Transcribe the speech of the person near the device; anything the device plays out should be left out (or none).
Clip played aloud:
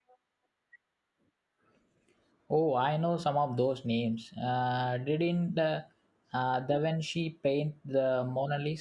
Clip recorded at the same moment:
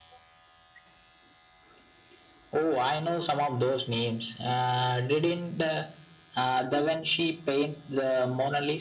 none